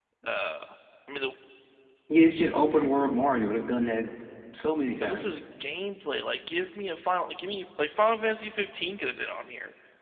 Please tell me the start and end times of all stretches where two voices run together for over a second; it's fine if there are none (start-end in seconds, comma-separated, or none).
none